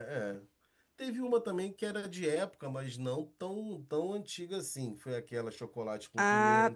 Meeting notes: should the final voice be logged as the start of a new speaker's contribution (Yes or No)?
Yes